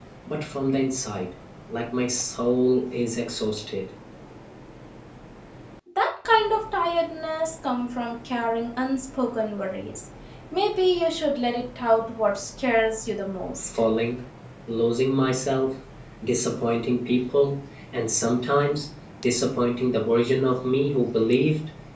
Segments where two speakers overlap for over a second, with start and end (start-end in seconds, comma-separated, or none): none